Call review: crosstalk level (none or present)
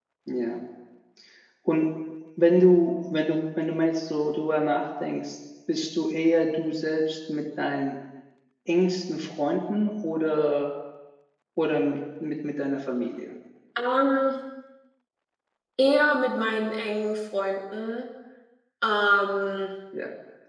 none